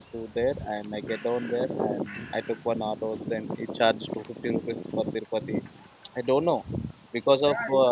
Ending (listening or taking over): taking over